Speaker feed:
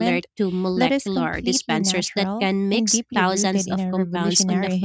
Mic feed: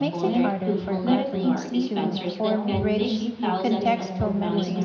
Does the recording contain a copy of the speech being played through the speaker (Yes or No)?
Yes